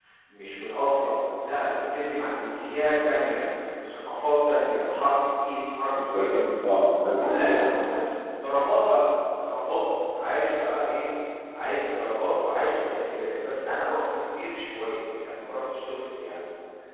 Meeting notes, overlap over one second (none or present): none